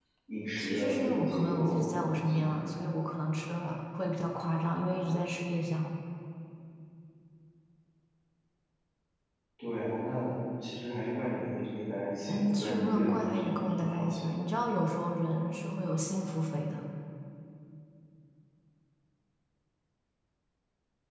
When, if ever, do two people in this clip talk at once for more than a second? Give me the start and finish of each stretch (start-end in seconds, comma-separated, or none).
0.6-2.7, 12.3-14.3